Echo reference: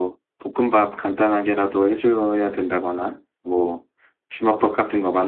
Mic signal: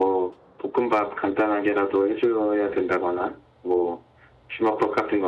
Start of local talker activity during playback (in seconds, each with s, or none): none